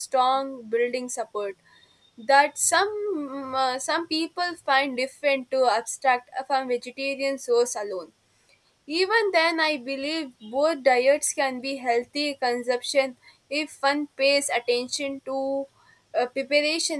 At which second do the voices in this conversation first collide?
none

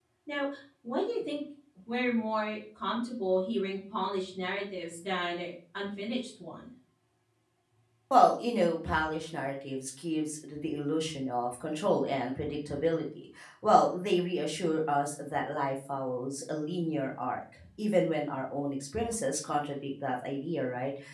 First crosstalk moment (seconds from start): none

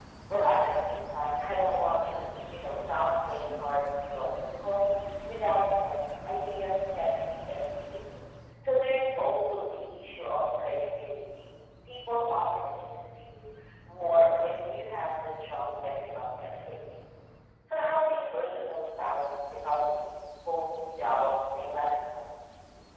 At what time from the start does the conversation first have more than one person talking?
none

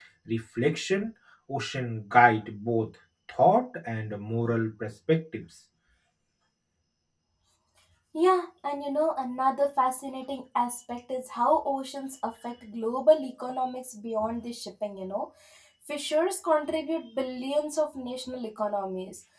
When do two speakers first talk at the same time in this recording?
none

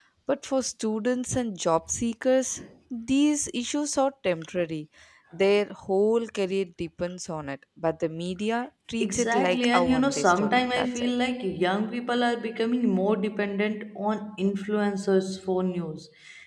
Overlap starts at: 9.0 s

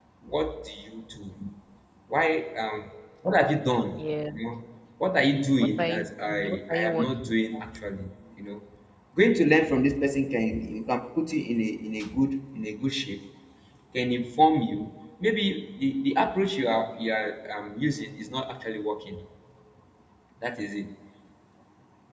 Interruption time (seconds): 5.6 s

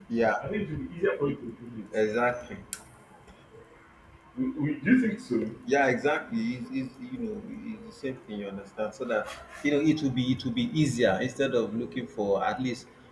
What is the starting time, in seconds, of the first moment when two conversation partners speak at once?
none

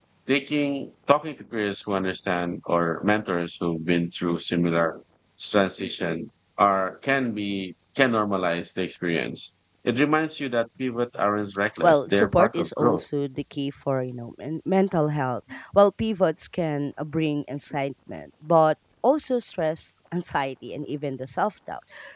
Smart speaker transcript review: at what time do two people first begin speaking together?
11.8 s

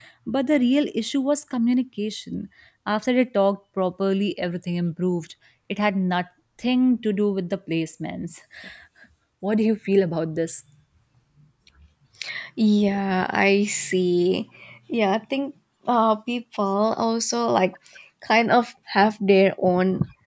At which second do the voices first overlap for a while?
none

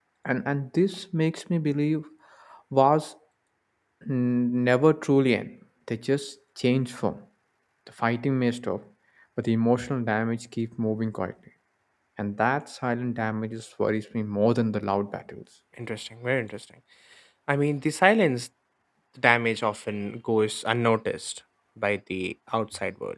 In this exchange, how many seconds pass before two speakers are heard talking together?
none

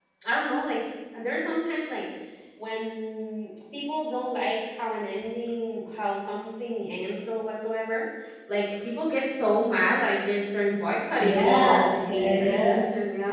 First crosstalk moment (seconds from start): 11.2 s

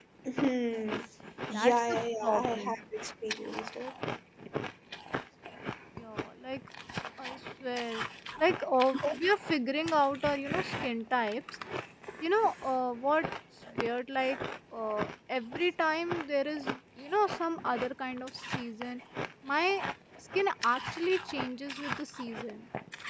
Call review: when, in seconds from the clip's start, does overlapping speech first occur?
1.5 s

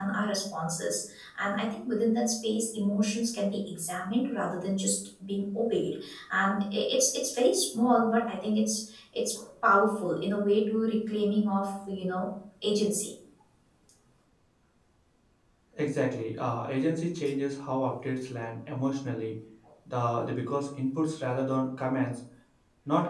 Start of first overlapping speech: none

